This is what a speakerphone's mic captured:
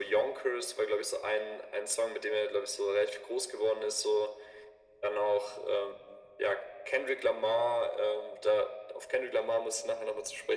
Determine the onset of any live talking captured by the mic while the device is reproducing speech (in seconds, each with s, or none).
none